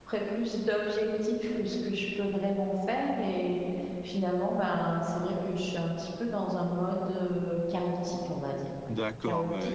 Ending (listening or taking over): taking over